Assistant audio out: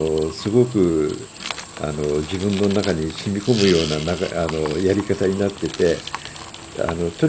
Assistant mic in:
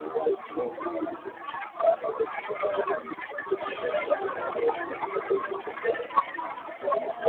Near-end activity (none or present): present